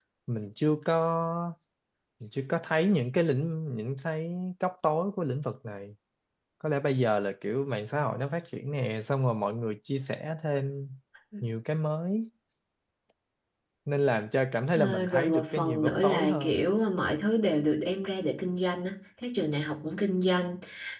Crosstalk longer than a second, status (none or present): present